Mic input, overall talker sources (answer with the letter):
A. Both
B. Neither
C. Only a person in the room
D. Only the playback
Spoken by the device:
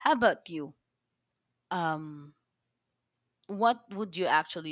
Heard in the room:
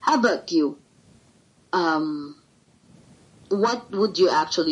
D